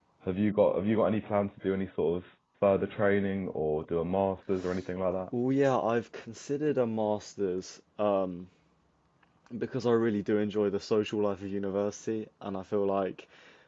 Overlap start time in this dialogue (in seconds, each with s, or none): none